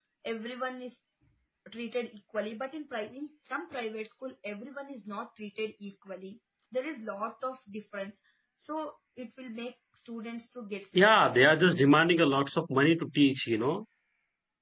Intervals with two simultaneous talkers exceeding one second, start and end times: none

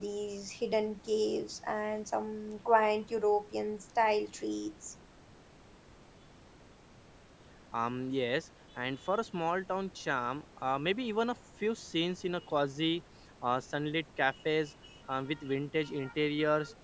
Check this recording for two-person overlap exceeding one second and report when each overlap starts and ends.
none

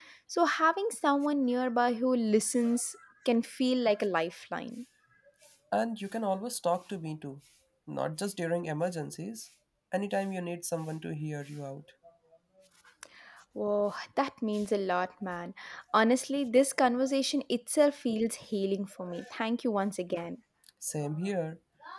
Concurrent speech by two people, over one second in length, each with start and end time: none

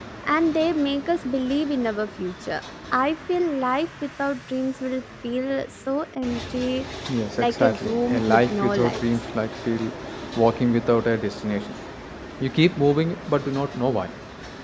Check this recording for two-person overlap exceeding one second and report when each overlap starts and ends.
7.4-9.1

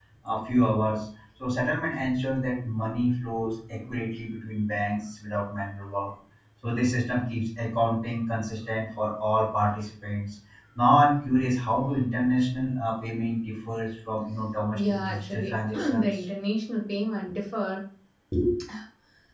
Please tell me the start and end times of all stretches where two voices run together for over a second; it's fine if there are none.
14.7-16.1

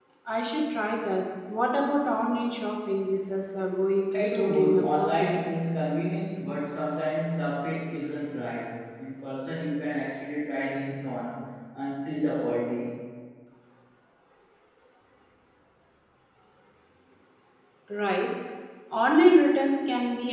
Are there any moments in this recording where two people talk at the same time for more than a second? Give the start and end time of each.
4.1-5.4

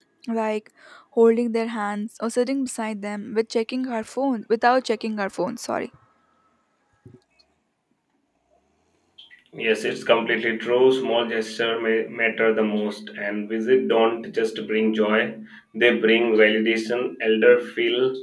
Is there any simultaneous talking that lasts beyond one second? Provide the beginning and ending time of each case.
none

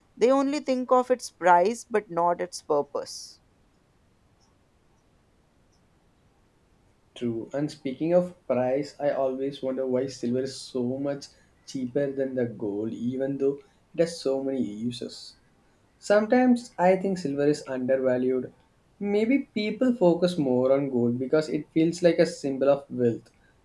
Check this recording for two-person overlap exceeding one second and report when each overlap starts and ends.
none

